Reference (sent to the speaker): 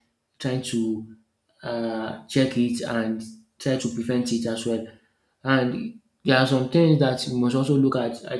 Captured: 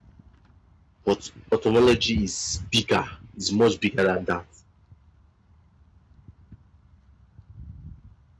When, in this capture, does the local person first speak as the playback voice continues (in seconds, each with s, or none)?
1.0 s